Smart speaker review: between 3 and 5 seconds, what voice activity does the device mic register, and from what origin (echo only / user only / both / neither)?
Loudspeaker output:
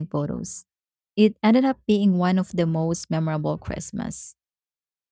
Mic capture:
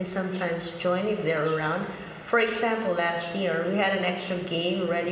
user only